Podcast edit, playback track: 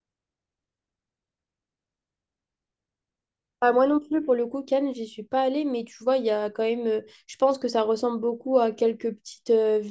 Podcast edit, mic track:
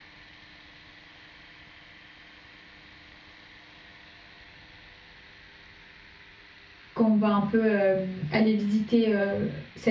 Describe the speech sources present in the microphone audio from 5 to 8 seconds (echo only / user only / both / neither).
user only